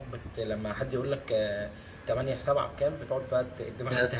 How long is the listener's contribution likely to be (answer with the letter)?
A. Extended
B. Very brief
A